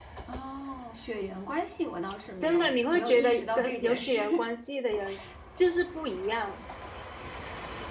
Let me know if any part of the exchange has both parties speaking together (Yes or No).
Yes